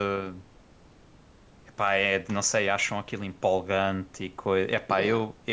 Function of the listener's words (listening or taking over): taking over